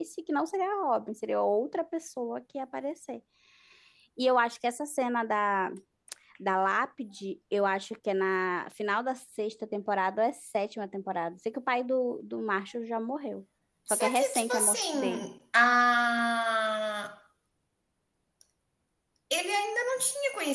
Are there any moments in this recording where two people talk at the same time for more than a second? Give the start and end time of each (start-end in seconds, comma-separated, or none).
13.9-15.3